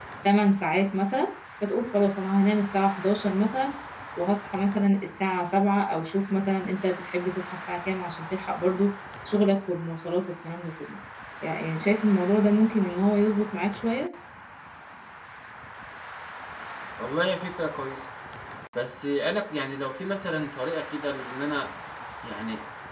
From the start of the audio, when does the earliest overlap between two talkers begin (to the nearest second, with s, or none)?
none